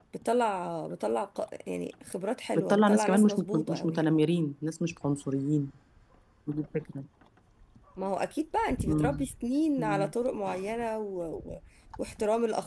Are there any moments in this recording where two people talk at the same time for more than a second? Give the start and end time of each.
2.6-4.2

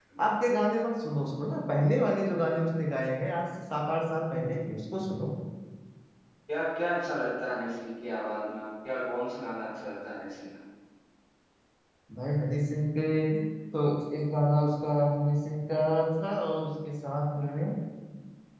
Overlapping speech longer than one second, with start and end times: none

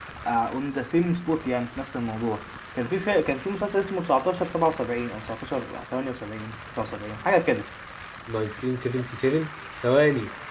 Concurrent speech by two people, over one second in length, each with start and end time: none

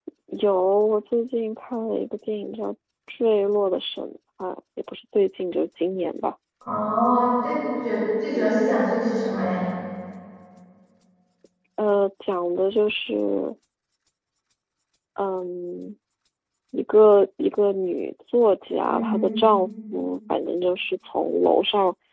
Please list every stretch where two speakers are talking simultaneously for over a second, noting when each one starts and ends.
none

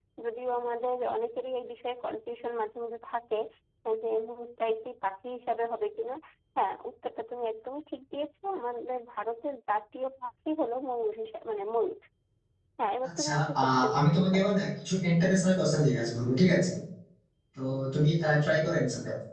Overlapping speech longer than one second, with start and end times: 13.1-14.5

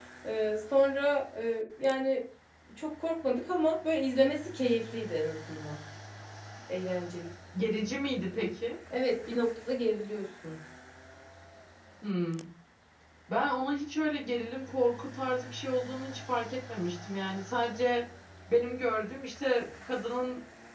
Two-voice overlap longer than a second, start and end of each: none

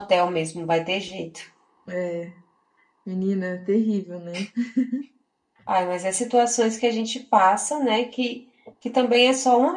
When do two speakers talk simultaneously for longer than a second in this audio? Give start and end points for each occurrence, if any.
none

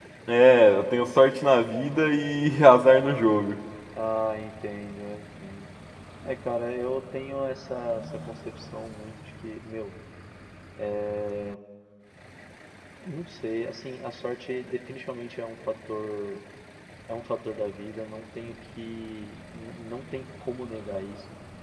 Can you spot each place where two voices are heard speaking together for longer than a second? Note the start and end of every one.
none

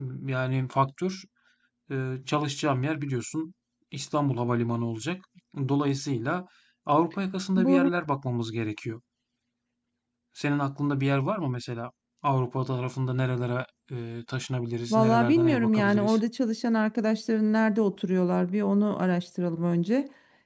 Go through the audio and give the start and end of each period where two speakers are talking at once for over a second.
14.9-16.2

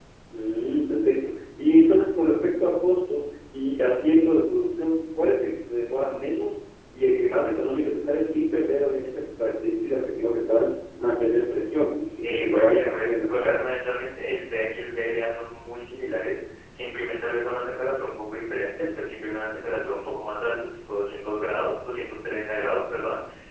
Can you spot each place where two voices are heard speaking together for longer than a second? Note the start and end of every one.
12.2-13.6

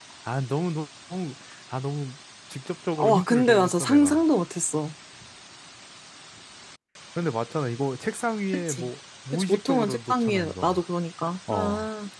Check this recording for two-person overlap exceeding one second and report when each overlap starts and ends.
3.0-4.2, 9.3-10.8

